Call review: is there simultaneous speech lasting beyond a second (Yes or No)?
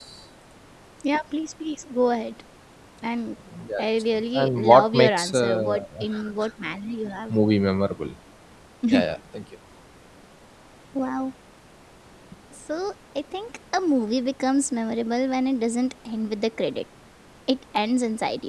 Yes